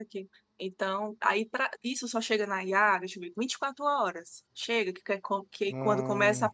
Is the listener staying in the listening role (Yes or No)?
Yes